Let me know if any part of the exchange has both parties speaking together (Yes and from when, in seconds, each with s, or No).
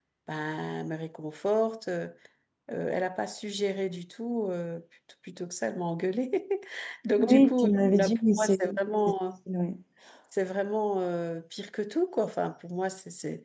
Yes, from 7.2 s